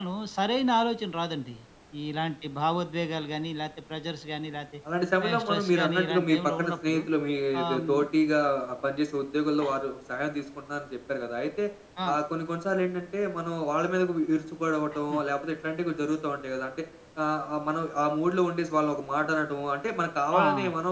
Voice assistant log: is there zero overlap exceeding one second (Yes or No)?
No